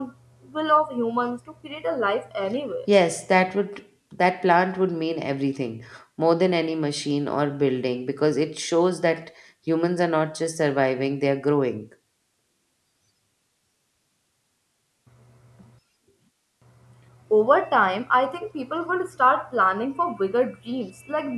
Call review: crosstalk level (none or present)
none